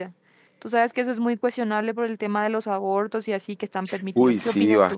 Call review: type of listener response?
taking over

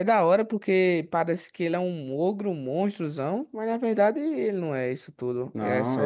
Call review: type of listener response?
taking over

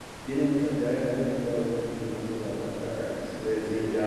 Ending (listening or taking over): listening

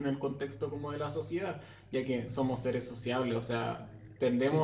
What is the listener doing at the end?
listening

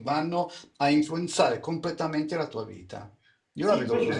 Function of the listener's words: taking over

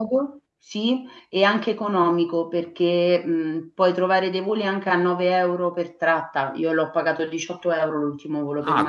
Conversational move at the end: taking over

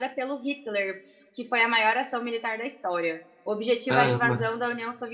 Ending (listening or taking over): listening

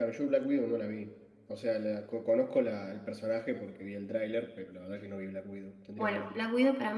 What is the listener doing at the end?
taking over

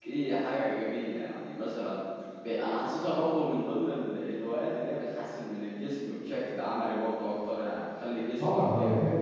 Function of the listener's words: taking over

